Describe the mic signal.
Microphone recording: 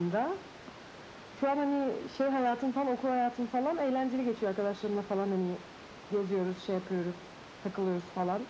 echo only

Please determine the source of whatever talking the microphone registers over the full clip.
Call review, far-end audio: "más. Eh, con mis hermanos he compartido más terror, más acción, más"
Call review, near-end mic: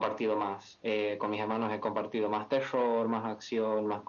echo only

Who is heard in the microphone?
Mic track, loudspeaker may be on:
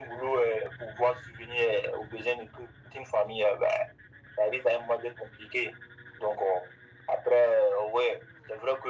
echo only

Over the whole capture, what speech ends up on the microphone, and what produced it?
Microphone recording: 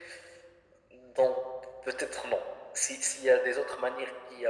echo only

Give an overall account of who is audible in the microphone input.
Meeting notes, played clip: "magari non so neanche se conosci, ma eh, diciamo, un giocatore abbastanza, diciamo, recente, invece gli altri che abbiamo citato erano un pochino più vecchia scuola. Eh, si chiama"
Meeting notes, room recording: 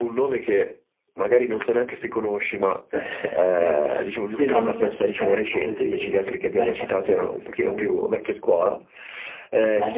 both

